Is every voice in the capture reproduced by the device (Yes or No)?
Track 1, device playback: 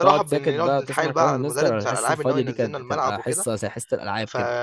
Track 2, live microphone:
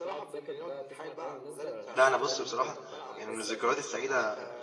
No